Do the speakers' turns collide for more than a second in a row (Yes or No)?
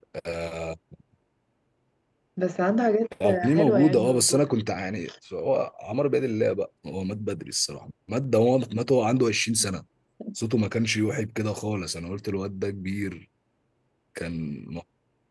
Yes